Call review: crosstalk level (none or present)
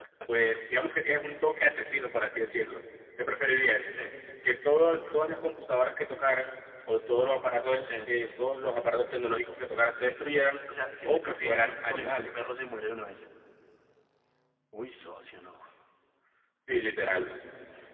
present